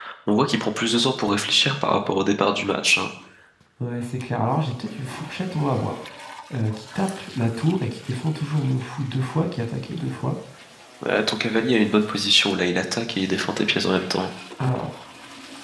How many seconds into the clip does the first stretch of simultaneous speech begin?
none

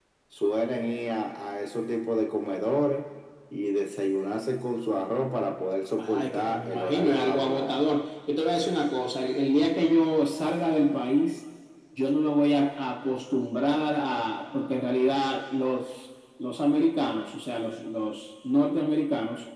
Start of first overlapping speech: 6.0 s

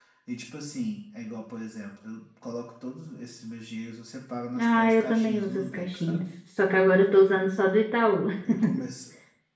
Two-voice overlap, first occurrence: 4.6 s

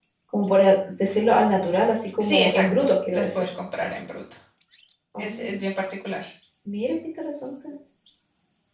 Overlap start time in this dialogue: 2.2 s

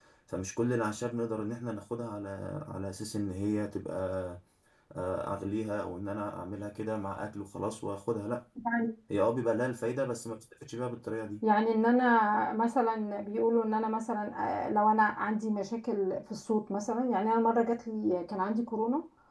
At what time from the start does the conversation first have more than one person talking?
none

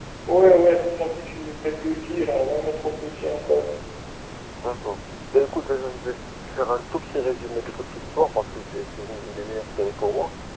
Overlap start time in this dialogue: none

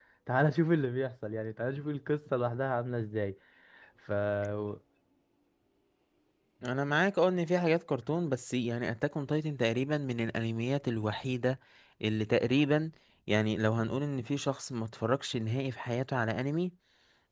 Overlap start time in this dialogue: none

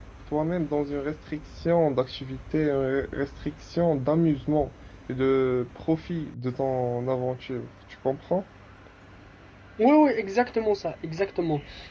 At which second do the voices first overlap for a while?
none

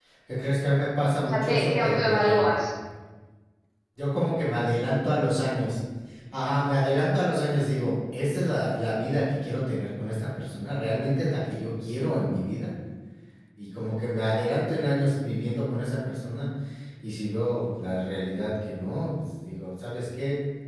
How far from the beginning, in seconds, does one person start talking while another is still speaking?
1.3 s

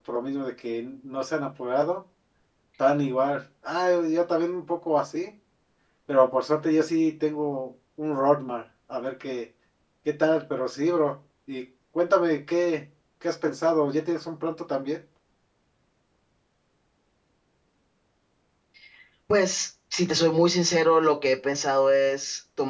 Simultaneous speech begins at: none

